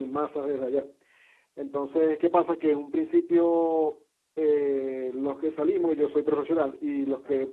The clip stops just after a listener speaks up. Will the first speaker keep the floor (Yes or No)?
Yes